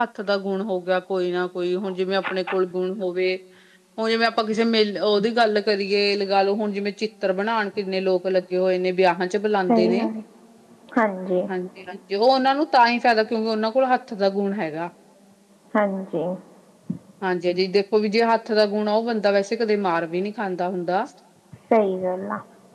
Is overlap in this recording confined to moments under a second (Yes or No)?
Yes